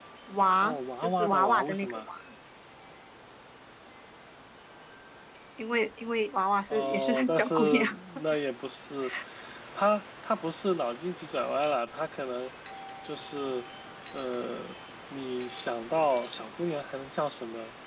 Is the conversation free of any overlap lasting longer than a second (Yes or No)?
No